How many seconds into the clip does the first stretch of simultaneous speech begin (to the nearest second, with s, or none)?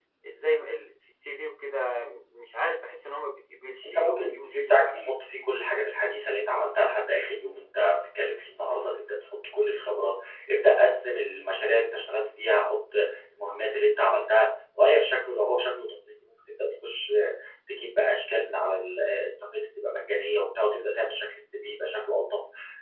4 s